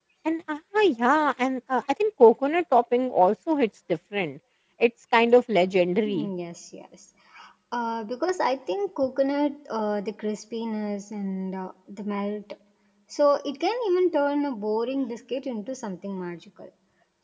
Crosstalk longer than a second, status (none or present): none